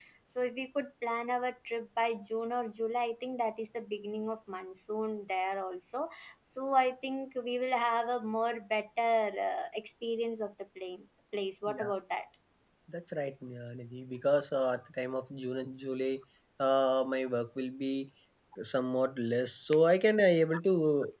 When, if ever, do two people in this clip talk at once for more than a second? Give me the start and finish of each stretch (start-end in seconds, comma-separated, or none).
none